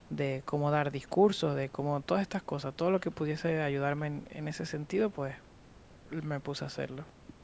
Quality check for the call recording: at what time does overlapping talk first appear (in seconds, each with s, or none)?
none